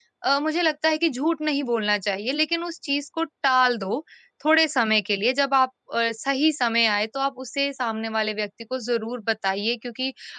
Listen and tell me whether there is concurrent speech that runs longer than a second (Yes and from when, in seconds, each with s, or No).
No